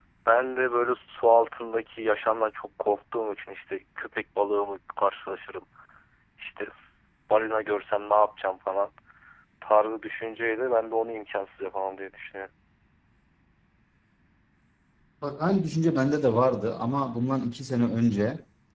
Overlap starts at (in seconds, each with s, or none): none